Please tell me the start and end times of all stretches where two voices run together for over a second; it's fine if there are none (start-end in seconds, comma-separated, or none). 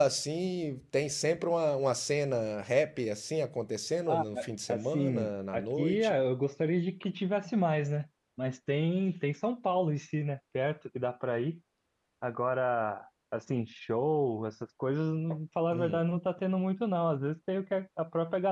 4.7-6.1